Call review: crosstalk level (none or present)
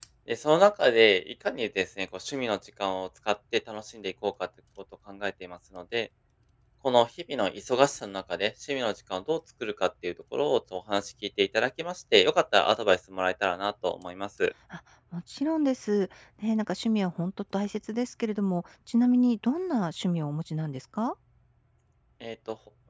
none